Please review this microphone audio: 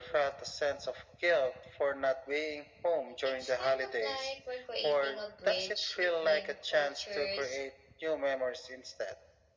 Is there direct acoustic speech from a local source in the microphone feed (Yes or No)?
Yes